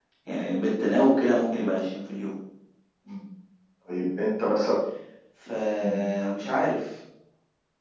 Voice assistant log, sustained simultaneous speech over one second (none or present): none